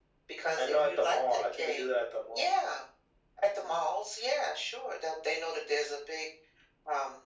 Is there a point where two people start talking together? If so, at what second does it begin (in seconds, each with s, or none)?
0.6 s